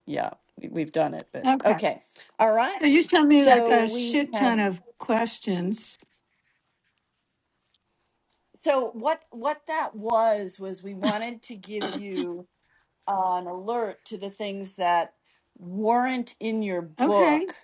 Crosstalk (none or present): present